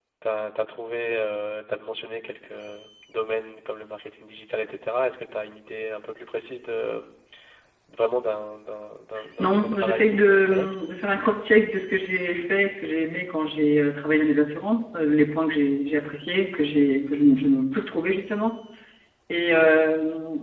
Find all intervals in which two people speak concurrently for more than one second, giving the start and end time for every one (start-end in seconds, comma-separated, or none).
9.4-10.7